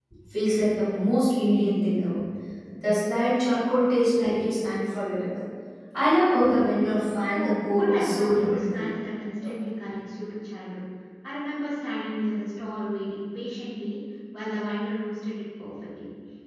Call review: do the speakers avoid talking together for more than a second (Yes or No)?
No